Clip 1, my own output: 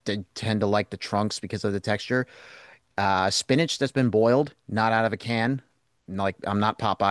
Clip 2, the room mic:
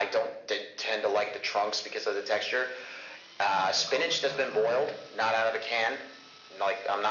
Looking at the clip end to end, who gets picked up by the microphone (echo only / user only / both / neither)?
both